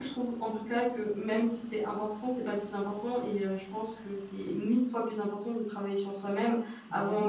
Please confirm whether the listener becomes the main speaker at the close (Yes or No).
No